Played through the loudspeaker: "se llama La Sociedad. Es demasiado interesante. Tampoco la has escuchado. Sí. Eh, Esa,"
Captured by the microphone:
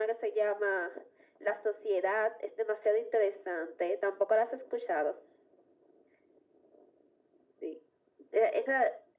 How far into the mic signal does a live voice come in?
none

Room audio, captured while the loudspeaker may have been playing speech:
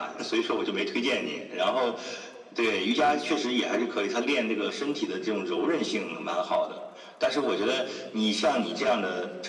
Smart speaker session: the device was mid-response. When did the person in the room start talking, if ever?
none

